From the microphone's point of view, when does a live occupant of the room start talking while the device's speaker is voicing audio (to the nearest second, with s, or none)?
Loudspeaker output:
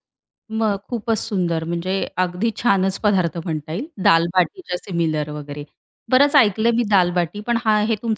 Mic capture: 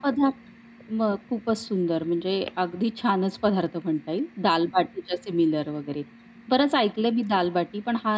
none